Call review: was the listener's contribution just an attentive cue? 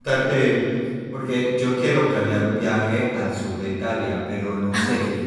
Yes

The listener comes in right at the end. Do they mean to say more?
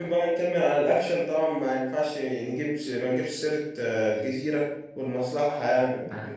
Yes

